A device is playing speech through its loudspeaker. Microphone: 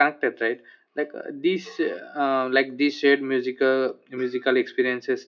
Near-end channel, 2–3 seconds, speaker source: user only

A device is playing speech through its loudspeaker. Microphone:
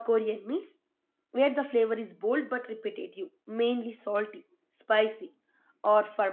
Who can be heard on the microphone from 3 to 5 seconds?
user only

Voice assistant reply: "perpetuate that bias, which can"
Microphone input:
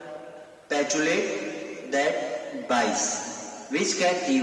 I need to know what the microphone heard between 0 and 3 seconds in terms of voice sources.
echo only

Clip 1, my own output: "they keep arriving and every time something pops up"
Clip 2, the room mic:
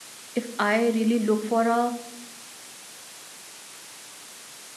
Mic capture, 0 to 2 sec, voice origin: user only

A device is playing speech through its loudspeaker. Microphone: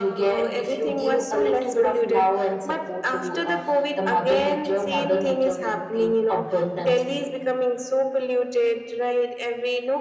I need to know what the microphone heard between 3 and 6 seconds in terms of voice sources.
echo only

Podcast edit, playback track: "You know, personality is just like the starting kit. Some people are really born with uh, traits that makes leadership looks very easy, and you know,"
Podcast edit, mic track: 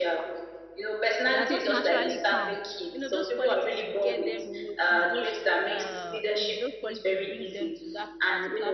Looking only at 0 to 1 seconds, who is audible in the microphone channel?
echo only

